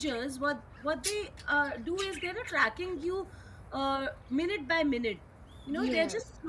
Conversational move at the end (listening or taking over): listening